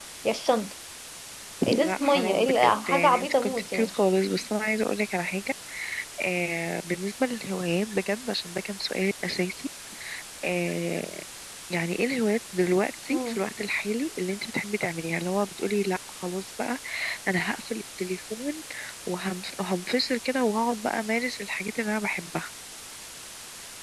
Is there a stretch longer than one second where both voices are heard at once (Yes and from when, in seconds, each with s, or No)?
Yes, from 1.8 s